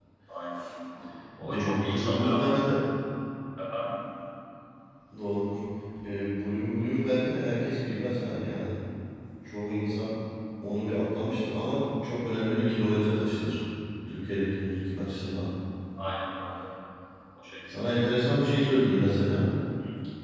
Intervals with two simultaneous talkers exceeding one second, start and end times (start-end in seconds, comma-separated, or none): 1.5-2.7